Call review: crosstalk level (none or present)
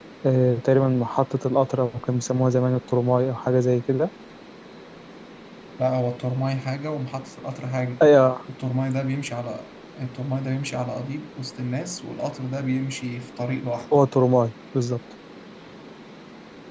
none